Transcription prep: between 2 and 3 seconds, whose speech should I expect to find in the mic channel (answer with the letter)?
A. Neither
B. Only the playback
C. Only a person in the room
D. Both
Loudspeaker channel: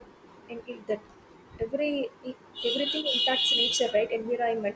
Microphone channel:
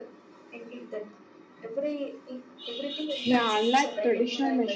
B